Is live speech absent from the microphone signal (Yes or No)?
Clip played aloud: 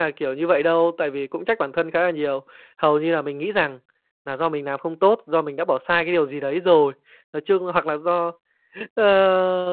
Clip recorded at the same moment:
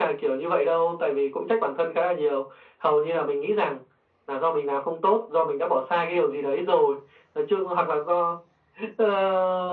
Yes